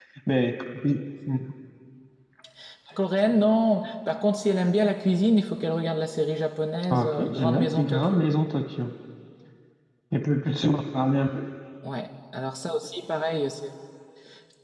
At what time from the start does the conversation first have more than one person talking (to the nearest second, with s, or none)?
7 s